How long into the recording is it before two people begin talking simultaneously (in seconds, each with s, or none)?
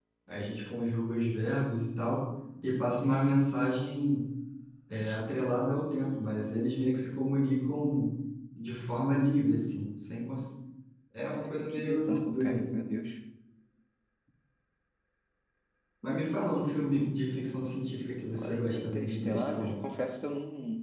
11.3 s